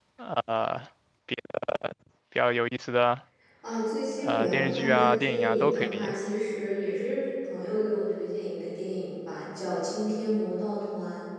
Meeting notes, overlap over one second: present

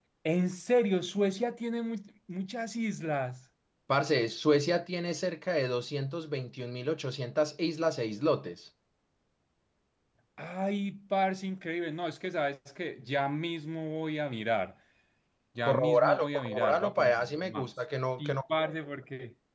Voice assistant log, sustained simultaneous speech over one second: present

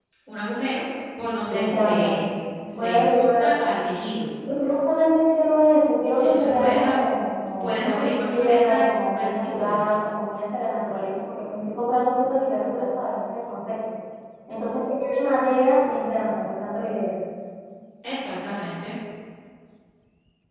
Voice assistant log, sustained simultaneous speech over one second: present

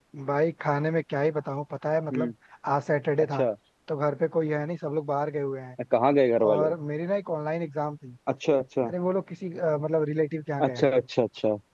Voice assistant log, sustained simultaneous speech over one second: none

